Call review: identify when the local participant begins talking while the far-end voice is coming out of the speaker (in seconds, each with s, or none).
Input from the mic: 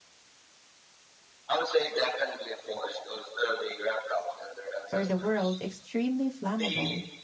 4.9 s